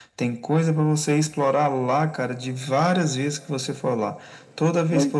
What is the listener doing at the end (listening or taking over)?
listening